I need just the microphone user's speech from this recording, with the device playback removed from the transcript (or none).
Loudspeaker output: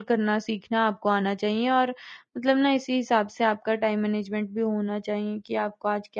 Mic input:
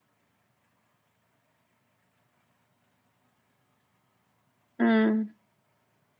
हुँ।